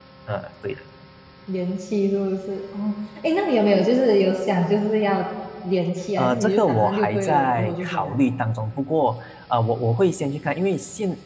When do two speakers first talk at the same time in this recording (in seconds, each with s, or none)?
6.2 s